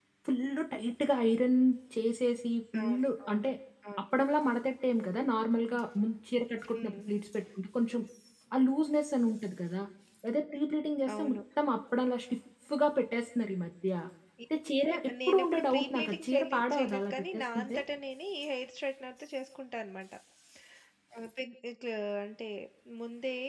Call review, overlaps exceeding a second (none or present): present